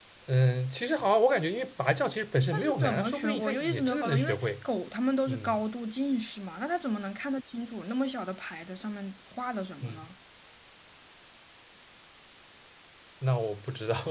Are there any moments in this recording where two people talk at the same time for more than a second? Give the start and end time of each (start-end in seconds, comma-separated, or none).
2.5-4.6